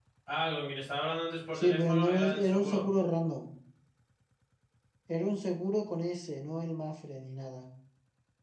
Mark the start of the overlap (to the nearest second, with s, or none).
2 s